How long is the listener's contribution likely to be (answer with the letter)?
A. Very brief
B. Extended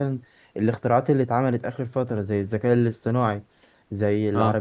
A